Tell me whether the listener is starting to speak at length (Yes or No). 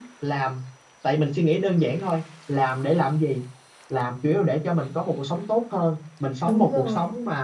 No